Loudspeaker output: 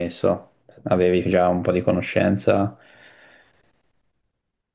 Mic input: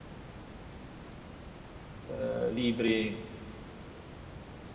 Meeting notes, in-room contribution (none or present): present